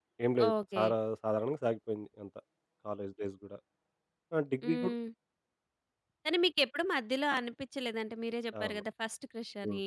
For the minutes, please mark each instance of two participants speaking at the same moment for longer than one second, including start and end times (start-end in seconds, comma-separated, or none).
none